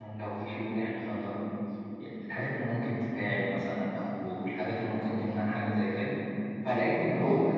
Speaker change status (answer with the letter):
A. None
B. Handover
A